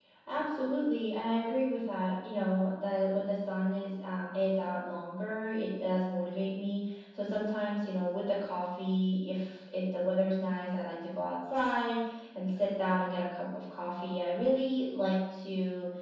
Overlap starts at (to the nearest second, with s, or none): none